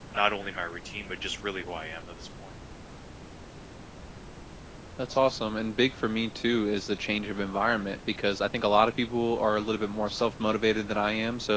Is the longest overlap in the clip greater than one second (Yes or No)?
No